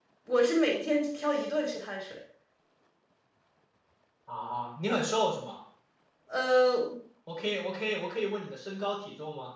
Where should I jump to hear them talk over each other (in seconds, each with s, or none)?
none